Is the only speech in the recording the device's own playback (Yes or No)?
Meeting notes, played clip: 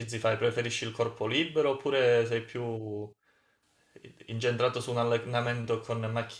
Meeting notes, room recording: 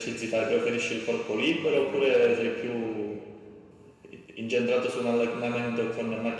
No